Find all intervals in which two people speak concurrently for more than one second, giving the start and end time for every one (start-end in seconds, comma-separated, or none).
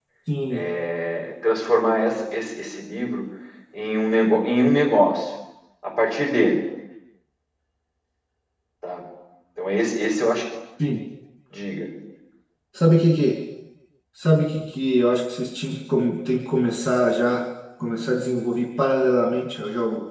none